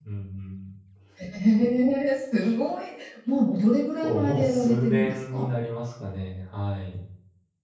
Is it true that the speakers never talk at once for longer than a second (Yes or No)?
No